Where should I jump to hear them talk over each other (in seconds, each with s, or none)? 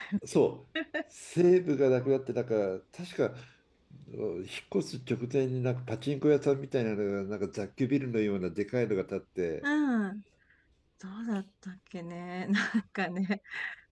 none